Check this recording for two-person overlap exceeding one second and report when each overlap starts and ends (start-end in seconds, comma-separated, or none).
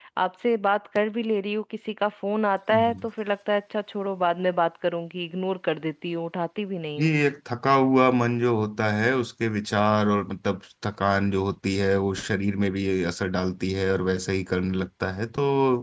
none